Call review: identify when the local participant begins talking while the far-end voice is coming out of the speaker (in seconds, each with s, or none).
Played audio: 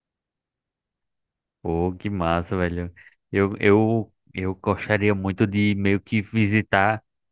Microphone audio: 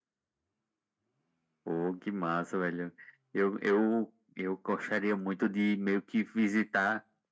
none